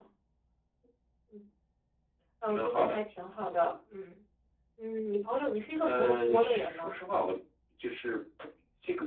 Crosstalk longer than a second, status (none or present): present